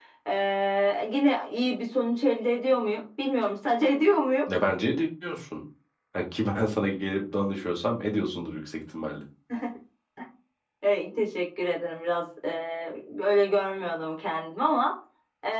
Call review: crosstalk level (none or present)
none